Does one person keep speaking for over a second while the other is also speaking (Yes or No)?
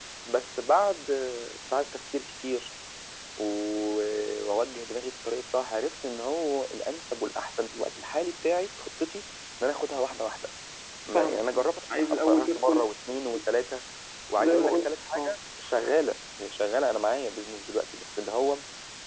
Yes